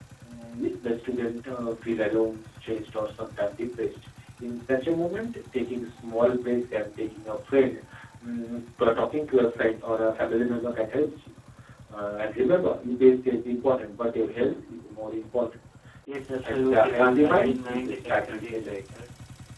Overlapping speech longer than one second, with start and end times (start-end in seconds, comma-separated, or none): 16.4-18.7